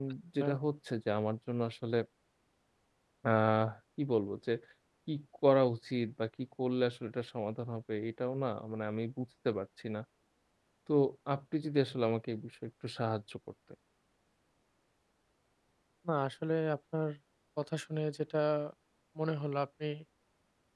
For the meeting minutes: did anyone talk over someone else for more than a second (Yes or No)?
No